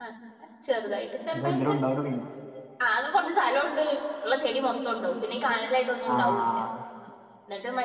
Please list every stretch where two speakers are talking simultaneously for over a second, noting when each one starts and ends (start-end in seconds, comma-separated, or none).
none